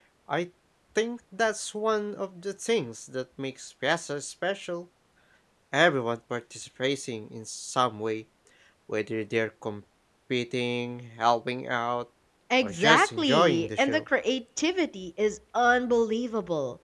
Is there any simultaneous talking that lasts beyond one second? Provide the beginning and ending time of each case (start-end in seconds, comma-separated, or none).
12.6-14.0